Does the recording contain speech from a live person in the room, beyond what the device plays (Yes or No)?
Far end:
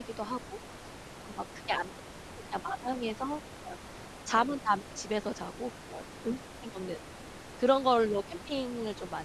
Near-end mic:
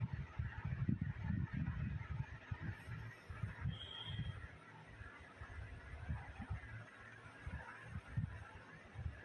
No